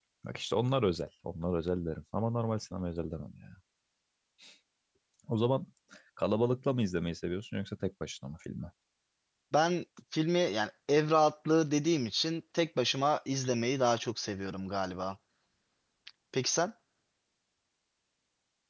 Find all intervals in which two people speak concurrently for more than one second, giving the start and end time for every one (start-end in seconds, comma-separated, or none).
none